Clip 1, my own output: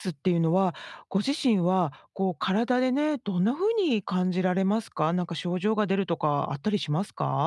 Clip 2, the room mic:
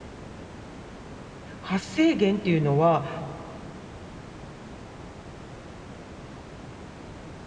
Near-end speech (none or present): present